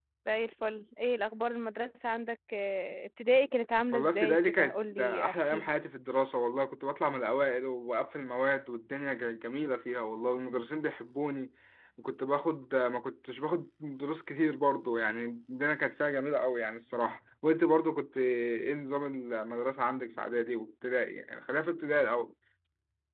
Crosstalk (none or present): present